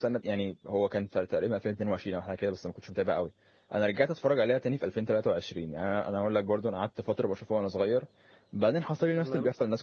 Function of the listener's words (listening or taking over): listening